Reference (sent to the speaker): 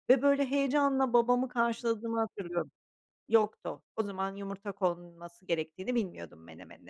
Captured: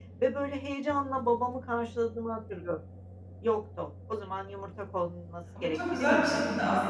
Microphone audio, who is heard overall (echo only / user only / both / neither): both